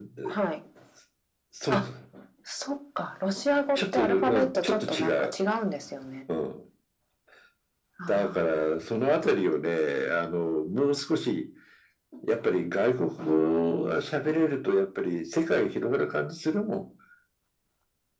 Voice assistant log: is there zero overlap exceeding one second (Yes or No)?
No